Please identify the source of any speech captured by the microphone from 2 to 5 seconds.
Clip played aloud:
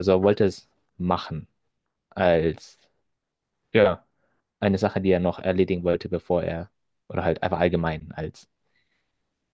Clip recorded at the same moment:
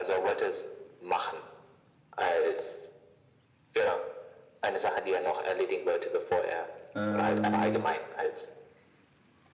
echo only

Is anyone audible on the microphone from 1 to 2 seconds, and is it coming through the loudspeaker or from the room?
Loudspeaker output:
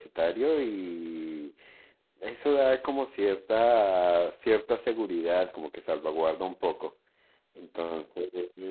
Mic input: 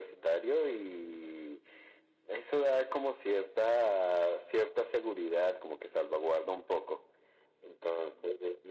echo only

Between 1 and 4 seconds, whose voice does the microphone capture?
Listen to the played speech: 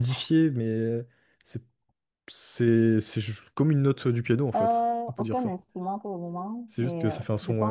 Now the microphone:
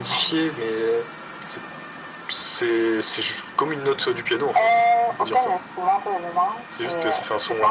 echo only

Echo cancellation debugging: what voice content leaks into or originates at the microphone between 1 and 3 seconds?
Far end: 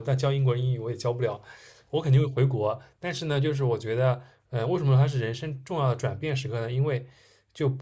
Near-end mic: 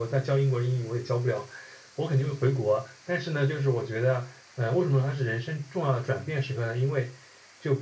echo only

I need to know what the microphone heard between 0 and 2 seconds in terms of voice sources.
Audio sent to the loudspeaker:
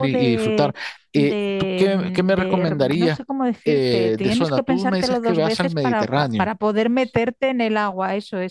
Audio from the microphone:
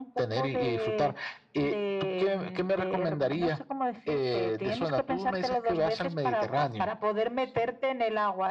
echo only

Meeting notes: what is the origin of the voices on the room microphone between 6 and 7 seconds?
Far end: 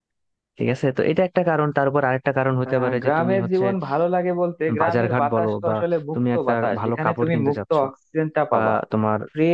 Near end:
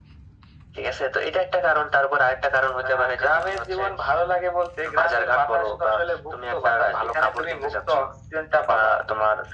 echo only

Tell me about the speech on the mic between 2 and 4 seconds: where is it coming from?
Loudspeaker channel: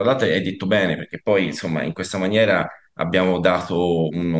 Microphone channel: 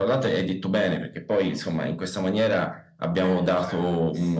both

